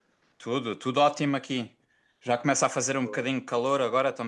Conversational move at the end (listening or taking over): listening